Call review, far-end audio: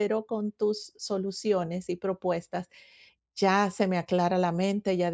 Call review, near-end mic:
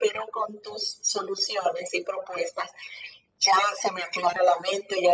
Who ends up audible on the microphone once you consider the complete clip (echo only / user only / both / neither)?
echo only